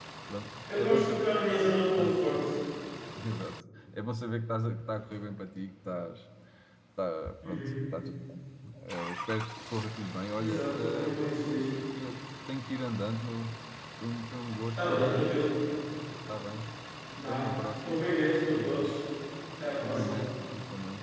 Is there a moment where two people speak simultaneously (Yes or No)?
Yes